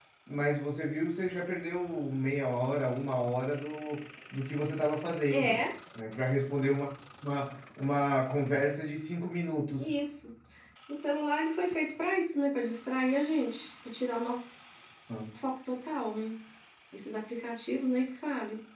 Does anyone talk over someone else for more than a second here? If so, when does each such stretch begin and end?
none

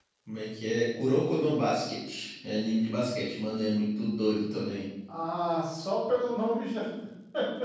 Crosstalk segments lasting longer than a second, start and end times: none

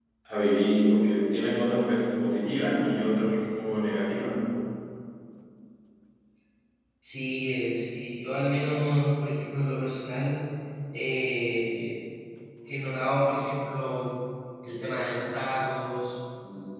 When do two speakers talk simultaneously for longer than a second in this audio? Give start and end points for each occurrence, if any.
none

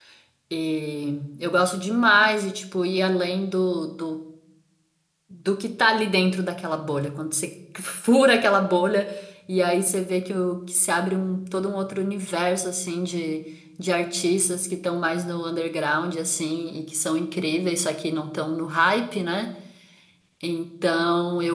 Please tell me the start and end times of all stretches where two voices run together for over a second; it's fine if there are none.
none

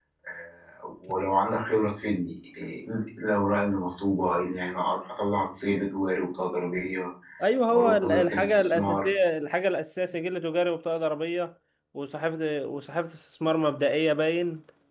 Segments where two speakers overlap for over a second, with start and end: 7.7-9.1

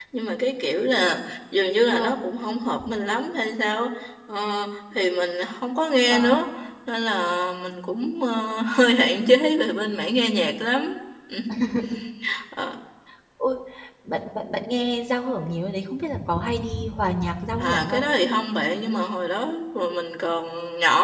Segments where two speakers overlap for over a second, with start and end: none

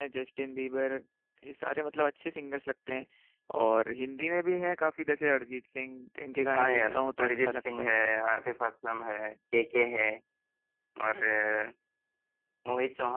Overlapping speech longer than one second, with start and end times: 6.5-7.9

